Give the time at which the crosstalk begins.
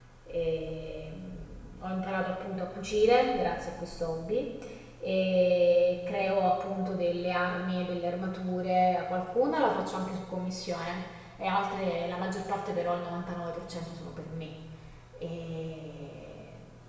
none

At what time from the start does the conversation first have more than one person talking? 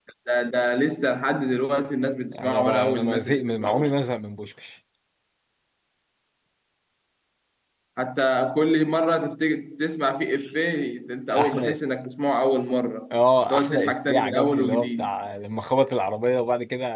2 s

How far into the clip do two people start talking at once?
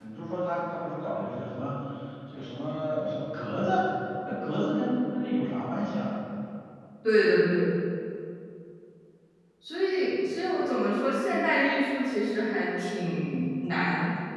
none

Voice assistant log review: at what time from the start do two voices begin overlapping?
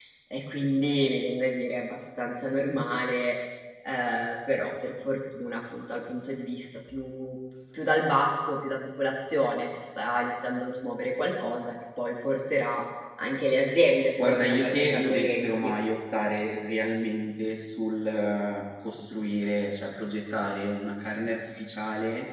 14 s

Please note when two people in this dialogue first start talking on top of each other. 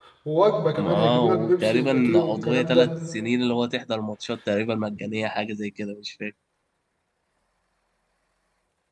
1 s

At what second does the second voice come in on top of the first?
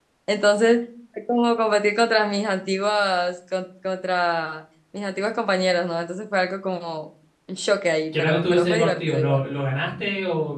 8 s

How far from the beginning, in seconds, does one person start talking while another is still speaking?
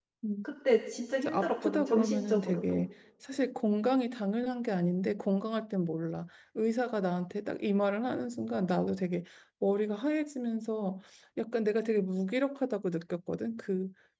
1 s

